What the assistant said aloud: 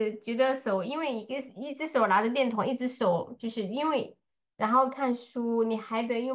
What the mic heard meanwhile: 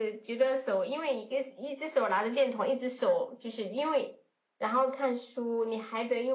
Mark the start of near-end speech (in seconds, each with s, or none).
none